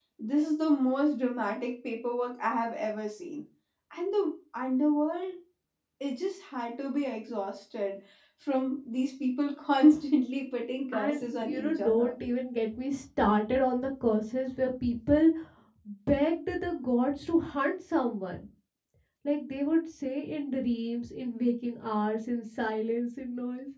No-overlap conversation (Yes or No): No